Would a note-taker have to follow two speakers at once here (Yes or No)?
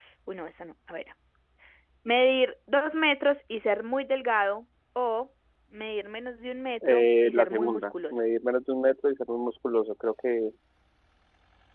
Yes